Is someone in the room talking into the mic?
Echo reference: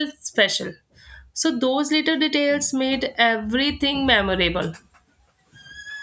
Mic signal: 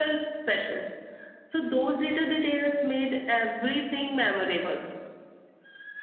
No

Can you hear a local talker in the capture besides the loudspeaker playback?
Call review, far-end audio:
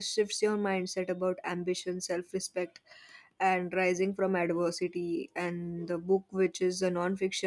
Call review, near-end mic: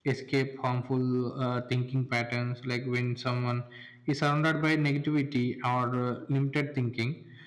Yes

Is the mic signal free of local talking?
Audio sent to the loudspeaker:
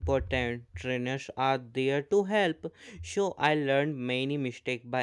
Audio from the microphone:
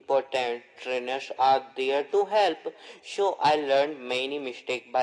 Yes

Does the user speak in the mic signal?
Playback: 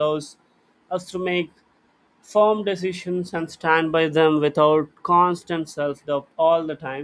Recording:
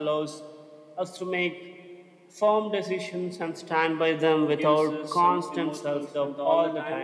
Yes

